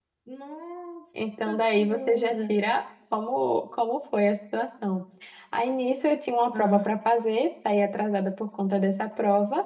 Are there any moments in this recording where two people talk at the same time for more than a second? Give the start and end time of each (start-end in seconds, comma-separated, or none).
1.2-2.5